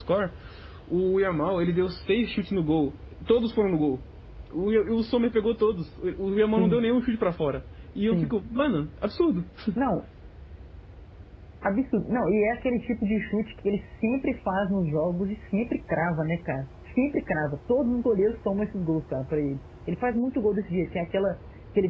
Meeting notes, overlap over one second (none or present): none